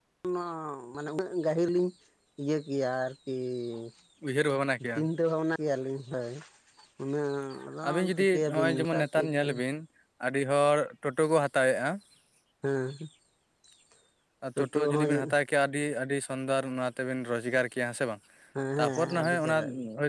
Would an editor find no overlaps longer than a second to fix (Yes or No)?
No